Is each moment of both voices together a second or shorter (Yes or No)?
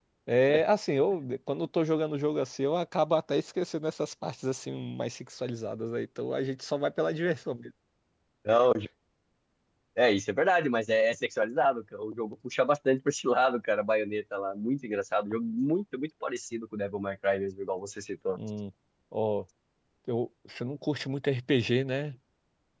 Yes